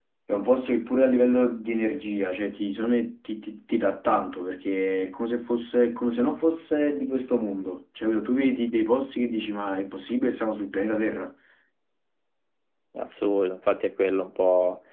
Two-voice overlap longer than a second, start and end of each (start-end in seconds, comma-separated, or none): none